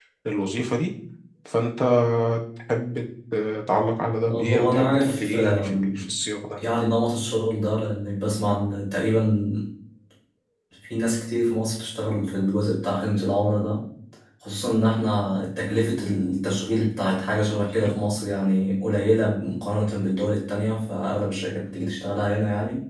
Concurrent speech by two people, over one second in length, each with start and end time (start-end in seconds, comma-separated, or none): 4.3-5.9